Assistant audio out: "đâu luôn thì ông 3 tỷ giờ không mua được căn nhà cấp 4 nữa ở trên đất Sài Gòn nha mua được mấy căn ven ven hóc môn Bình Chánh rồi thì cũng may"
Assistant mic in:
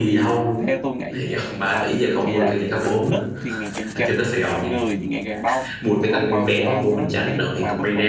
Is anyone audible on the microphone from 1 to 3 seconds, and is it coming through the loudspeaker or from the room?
both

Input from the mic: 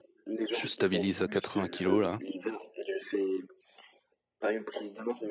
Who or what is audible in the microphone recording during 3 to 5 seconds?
echo only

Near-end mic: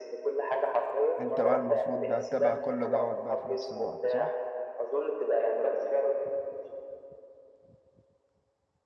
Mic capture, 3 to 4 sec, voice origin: both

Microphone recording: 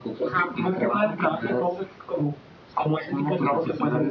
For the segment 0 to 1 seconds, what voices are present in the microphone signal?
echo only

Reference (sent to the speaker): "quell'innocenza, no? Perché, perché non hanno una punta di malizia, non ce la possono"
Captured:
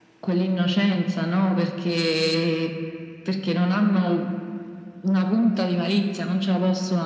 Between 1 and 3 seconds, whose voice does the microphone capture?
echo only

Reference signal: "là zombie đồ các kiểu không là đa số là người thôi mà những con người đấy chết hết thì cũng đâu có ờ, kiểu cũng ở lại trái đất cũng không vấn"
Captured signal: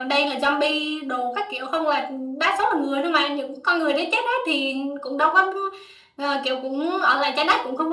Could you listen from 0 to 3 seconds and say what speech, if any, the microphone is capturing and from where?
echo only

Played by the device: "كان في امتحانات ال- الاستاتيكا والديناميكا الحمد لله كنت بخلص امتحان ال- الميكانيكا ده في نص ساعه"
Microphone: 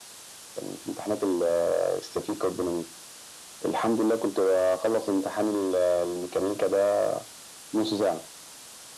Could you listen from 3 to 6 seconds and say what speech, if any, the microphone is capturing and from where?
echo only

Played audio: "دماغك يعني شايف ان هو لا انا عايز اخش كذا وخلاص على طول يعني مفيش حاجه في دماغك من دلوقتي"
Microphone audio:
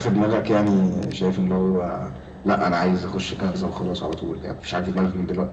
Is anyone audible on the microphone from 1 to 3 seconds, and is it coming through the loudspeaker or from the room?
echo only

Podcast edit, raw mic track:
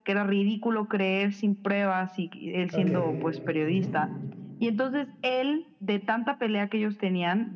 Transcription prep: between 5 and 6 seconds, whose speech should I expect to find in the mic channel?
echo only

